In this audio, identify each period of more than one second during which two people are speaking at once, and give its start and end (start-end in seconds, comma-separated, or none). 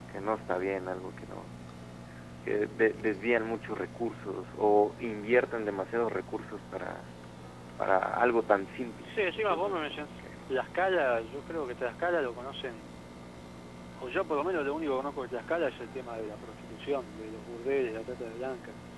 9.0-10.2